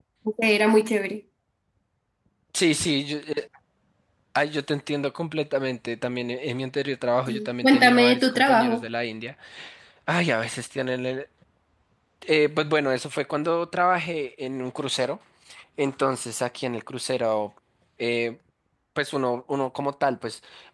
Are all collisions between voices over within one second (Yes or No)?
No